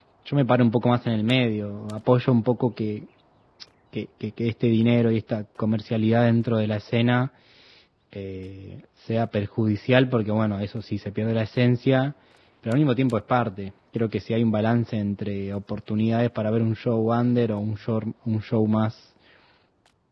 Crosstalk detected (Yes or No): No